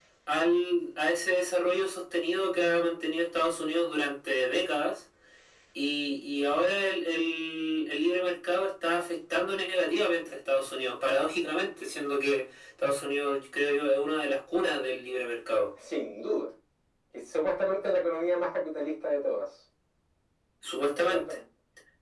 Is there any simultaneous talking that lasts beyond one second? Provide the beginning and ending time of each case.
none

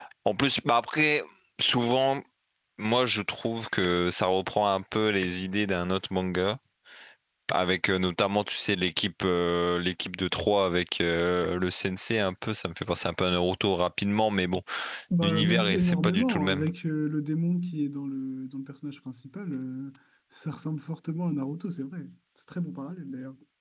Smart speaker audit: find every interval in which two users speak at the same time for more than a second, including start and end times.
15.2-16.6

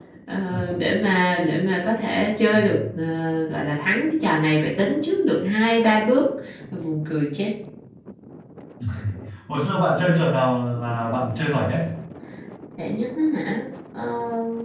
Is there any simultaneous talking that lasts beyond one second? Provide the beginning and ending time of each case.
none

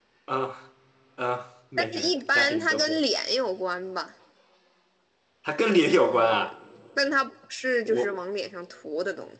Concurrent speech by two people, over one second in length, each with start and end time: 1.8-3.0

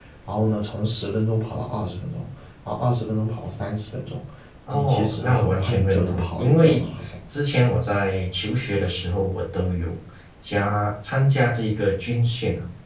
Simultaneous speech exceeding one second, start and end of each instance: 4.7-6.9

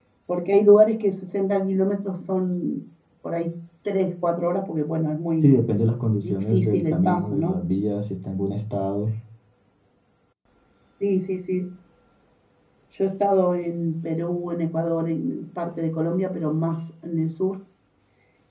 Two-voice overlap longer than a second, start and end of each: 6.2-7.6

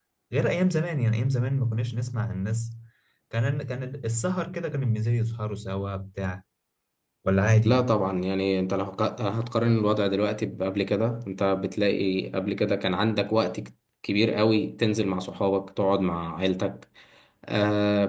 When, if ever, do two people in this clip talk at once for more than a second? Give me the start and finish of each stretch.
none

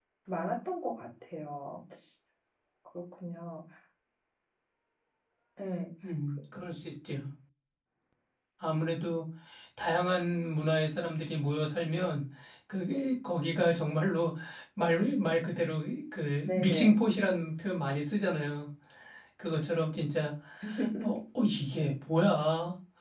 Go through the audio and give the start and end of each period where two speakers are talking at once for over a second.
none

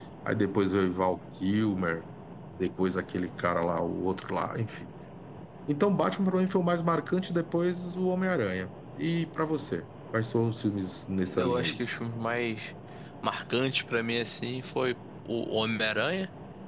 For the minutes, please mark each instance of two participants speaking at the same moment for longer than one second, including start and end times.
none

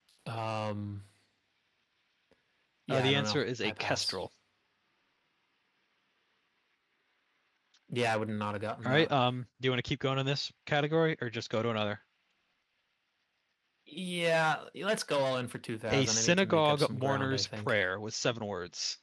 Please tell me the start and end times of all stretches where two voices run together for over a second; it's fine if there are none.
2.9-4.2, 15.9-17.8

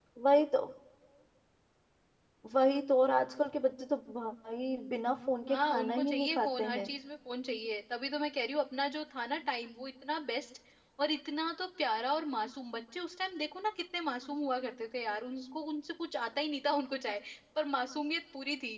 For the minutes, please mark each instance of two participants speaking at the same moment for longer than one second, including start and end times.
5.5-6.9

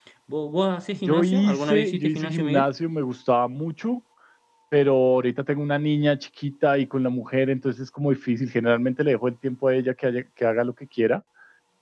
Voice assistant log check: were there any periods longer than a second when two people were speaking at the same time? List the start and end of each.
1.1-2.6

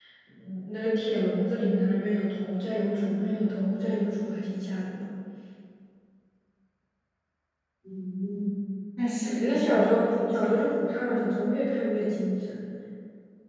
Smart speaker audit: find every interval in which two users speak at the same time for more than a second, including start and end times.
9.2-10.5

